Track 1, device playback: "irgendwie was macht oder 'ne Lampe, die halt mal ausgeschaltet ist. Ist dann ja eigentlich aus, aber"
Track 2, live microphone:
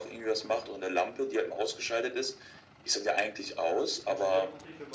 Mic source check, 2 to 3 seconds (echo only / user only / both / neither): echo only